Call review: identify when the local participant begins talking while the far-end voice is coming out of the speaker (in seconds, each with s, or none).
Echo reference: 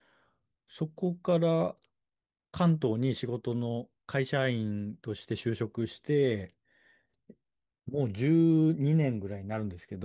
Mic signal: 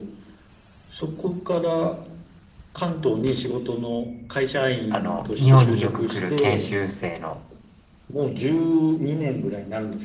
4.9 s